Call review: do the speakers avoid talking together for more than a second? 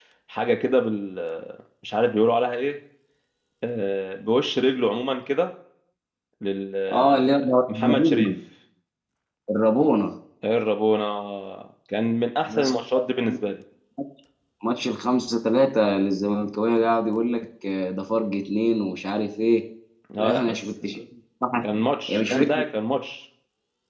No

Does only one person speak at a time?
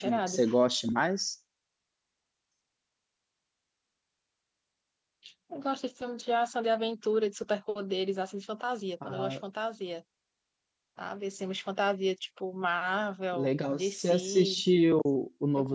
No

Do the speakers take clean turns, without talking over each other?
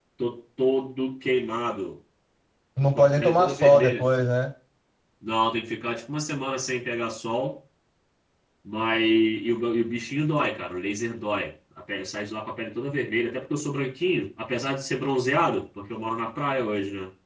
No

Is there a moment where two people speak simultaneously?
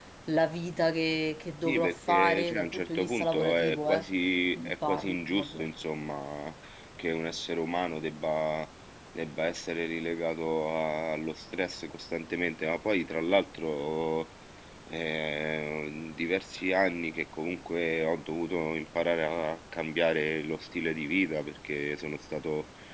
Yes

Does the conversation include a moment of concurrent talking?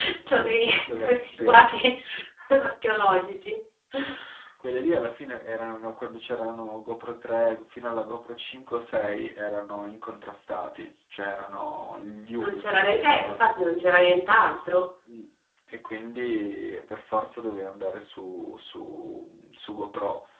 Yes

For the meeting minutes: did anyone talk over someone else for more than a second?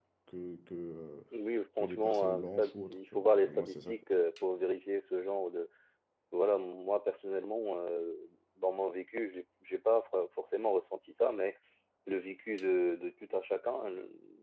Yes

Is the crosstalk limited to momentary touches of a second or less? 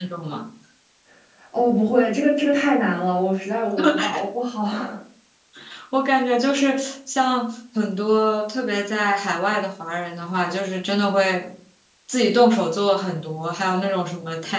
Yes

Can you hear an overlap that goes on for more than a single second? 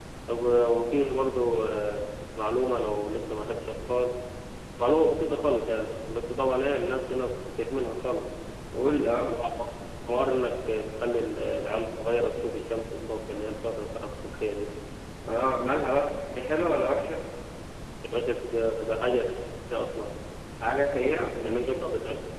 No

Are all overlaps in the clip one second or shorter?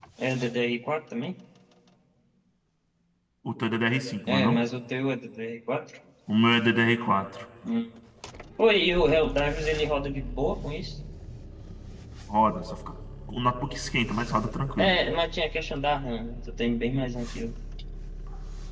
Yes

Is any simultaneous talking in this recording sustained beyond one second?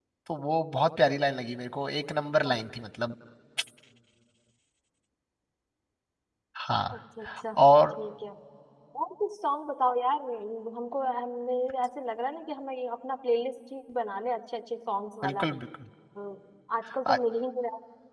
No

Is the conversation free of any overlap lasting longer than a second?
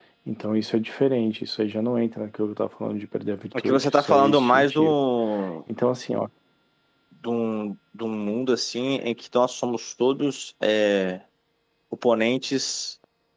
No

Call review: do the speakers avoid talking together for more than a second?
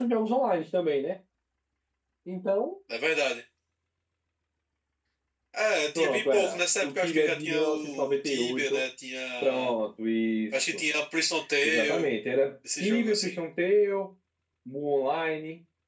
No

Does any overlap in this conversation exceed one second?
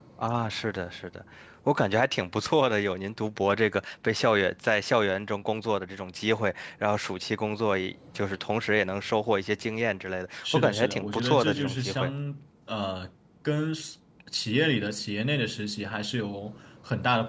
Yes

